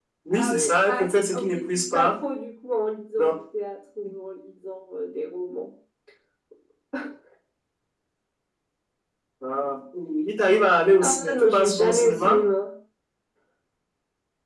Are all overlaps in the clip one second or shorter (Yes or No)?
No